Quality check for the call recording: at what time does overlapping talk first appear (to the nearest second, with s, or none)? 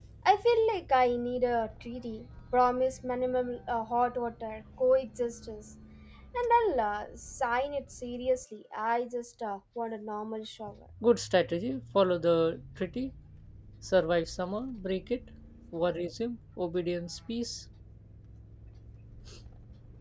none